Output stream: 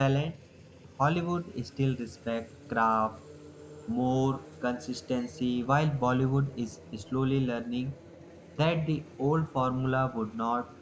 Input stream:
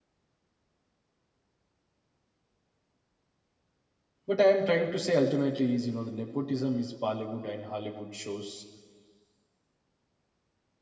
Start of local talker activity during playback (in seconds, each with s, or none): 4.3 s